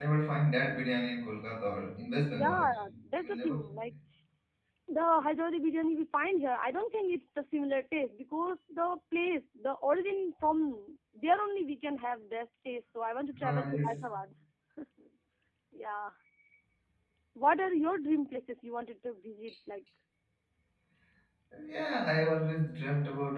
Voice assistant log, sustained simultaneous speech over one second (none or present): present